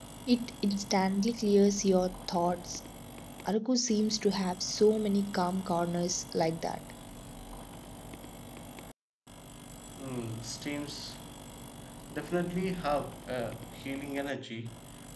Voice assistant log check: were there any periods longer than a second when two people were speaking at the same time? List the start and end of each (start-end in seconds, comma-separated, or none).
none